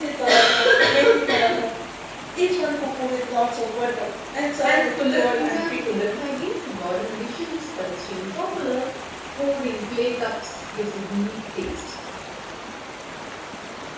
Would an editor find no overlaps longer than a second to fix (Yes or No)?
No